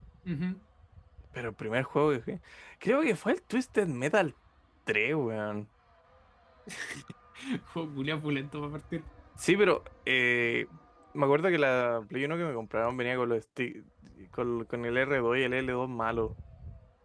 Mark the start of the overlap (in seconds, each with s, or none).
none